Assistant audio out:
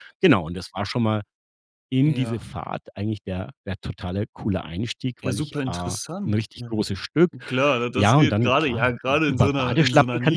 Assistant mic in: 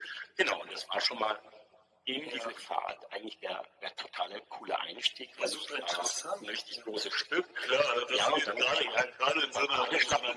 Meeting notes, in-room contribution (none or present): none